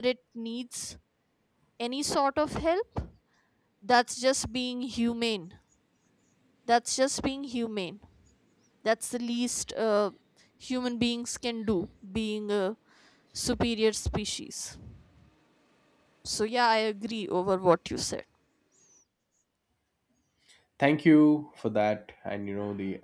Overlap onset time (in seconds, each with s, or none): none